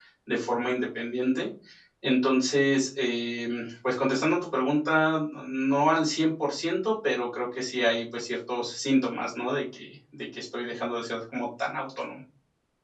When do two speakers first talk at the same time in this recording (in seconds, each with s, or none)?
none